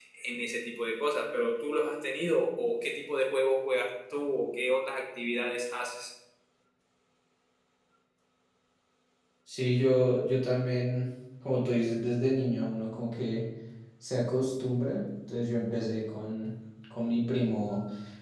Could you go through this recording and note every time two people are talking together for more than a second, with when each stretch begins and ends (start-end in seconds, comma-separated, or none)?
none